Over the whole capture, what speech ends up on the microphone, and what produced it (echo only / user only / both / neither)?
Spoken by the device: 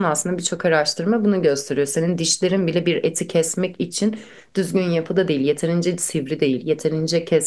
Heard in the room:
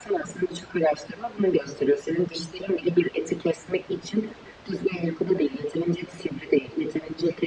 echo only